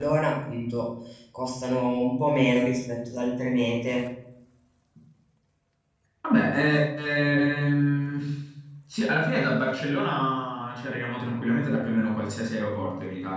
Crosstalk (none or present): none